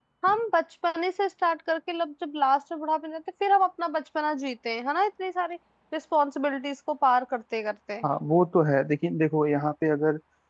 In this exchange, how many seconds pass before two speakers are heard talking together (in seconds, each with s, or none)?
none